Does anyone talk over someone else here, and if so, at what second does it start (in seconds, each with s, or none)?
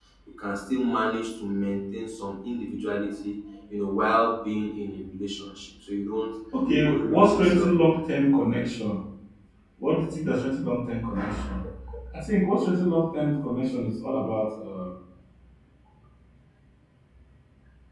6.8 s